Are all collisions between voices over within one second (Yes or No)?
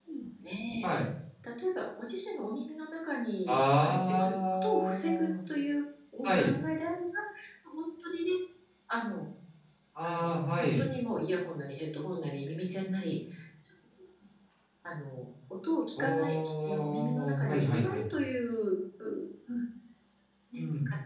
No